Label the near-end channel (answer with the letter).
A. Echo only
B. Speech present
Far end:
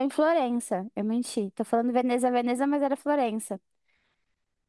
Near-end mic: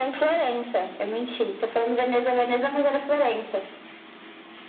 A